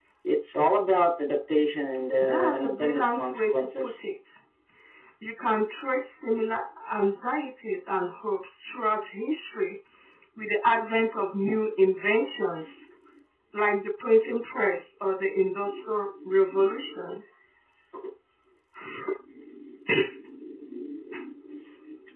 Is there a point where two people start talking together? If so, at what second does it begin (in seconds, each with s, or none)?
2.2 s